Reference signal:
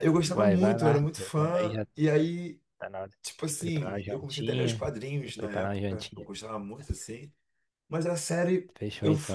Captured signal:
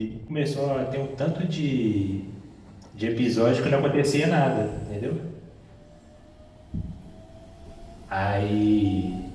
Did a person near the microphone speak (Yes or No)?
Yes